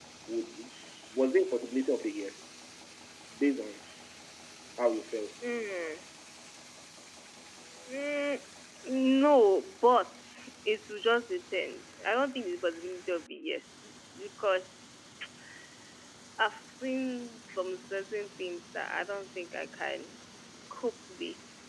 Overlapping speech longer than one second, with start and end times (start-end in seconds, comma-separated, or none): none